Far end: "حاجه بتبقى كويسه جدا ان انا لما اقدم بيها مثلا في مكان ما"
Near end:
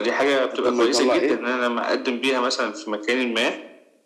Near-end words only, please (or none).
لحد ما يطلع ايه